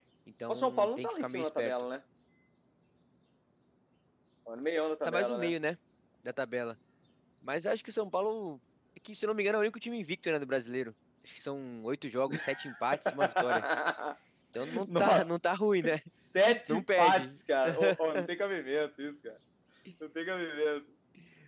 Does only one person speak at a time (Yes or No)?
No